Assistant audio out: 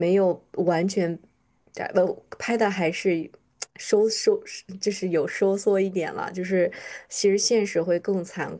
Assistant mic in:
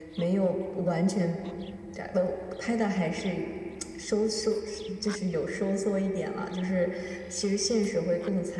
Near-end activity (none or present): none